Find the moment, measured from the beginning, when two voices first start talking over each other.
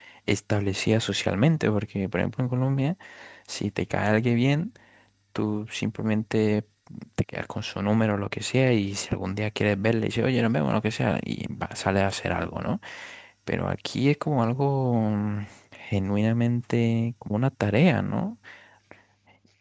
none

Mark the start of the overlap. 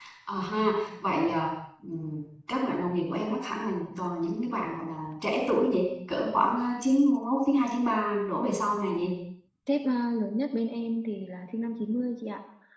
none

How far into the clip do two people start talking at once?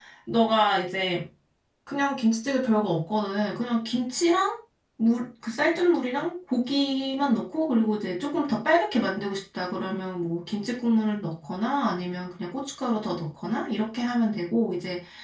none

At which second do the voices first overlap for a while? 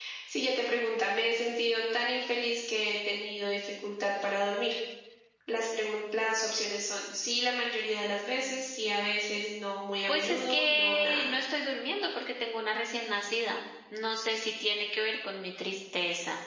10.1 s

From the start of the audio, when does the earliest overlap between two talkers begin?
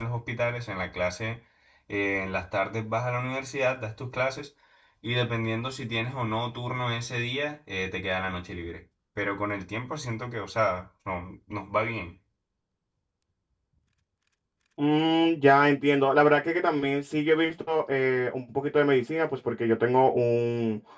none

